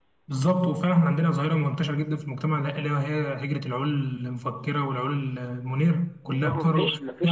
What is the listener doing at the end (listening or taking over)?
taking over